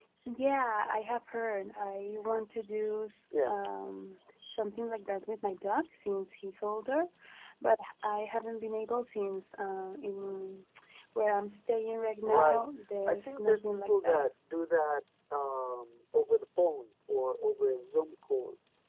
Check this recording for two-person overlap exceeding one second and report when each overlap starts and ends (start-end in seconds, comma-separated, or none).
13.1-14.3